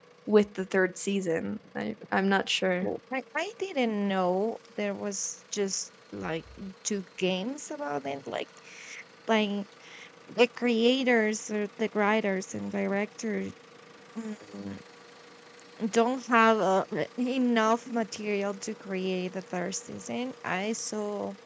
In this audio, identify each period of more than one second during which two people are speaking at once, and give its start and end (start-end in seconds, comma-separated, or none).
none